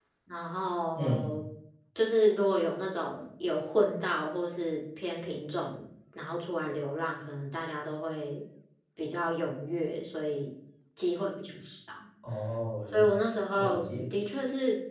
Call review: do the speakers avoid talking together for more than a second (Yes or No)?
Yes